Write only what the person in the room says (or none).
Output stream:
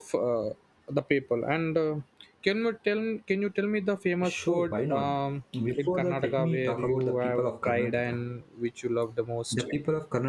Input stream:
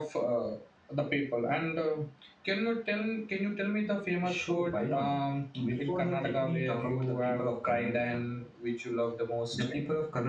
none